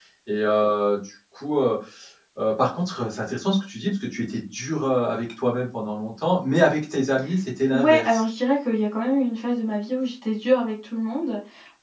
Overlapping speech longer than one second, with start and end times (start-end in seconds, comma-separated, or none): none